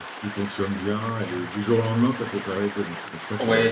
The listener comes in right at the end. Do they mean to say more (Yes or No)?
Yes